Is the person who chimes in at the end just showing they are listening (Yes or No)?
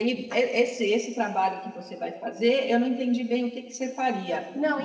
Yes